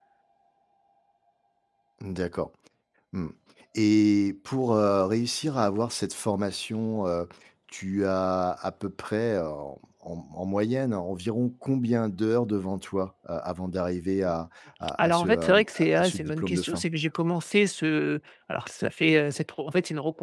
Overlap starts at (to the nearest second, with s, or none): 15 s